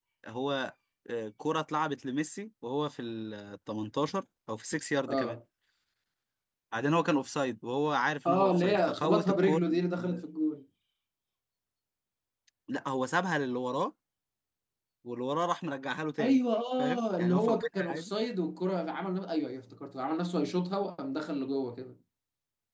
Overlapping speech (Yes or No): Yes